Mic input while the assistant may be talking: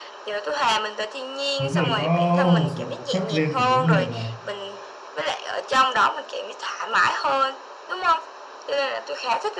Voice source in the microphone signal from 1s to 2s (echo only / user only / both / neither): both